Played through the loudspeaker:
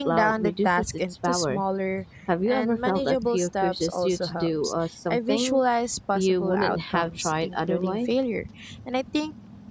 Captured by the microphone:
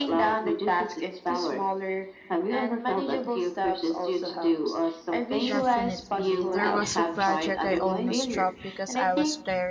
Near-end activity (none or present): present